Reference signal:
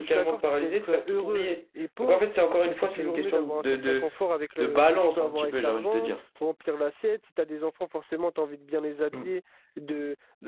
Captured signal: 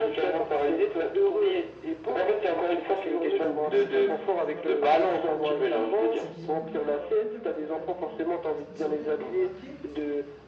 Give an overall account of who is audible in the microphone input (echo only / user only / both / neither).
both